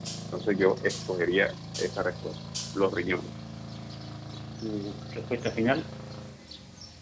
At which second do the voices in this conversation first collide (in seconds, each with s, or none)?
none